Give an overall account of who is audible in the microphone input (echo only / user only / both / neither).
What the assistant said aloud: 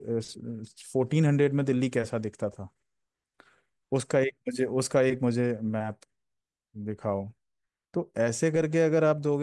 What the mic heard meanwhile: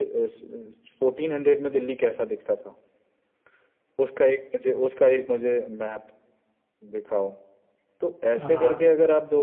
both